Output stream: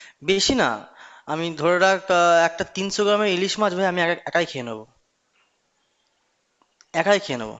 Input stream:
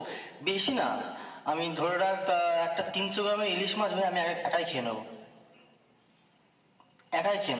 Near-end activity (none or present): none